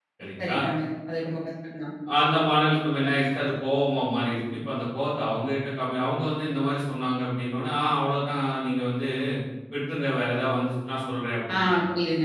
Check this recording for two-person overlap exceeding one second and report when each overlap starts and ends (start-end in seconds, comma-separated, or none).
none